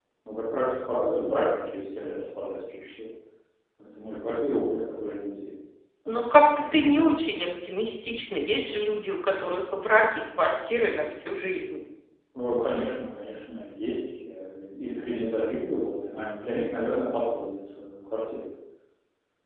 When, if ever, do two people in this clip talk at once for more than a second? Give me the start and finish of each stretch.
none

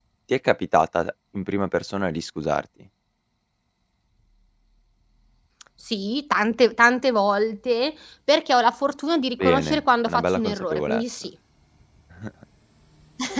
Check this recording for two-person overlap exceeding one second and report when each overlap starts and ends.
9.4-11.0

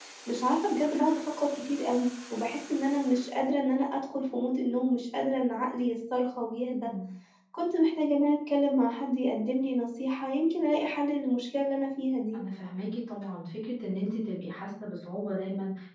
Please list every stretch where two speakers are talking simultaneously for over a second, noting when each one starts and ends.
none

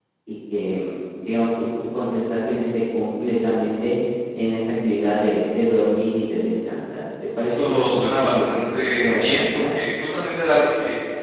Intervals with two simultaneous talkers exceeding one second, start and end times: 7.4-9.6

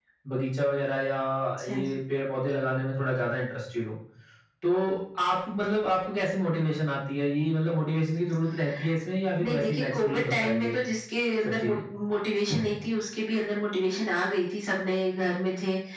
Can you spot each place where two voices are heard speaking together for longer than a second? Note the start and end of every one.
9.4-10.8

